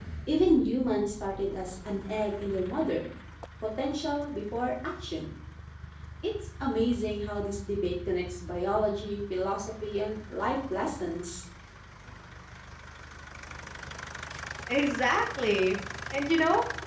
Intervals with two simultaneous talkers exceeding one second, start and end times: none

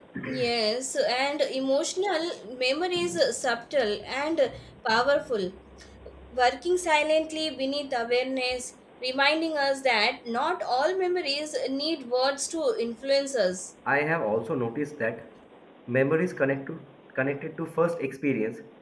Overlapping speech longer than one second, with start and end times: none

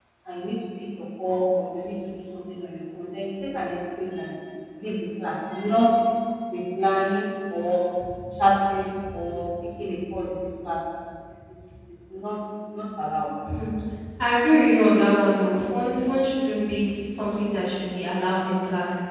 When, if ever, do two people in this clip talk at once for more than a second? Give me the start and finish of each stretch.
none

